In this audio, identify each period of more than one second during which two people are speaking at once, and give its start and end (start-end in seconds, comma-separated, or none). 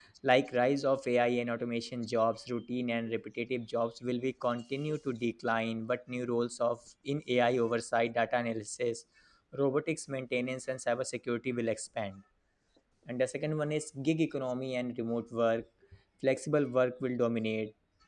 none